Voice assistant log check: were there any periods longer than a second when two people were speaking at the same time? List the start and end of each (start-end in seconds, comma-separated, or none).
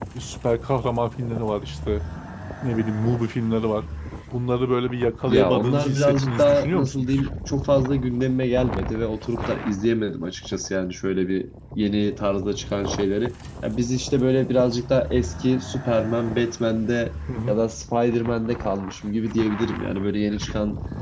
5.3-7.1